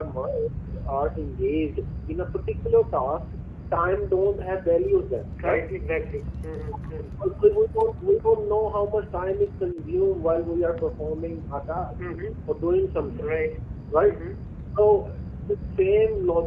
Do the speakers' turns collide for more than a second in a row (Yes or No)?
No